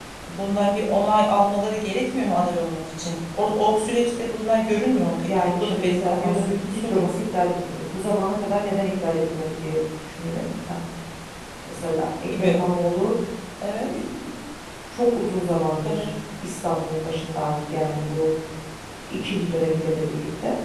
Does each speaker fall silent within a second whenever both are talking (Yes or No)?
No